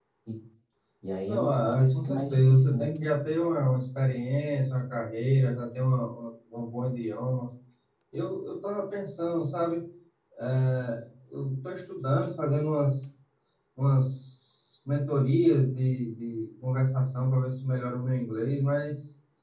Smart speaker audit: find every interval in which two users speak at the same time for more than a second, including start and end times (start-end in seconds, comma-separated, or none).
1.3-2.9